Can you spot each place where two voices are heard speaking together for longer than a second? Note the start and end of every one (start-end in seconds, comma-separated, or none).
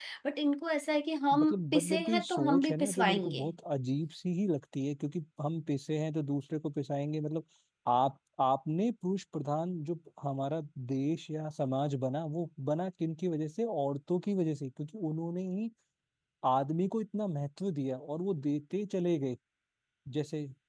1.3-3.5